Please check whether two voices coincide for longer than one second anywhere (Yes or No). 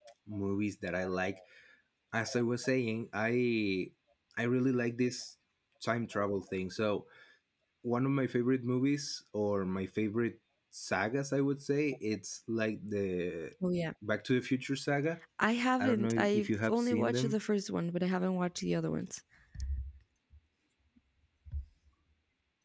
Yes